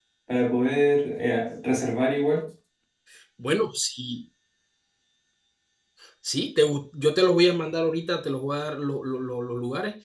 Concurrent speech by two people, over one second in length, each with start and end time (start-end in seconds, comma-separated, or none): none